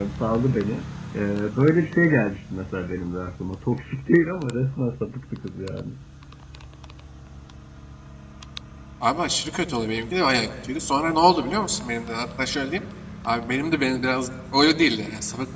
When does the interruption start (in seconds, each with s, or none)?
none